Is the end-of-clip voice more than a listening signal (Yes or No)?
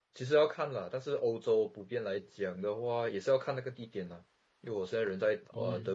No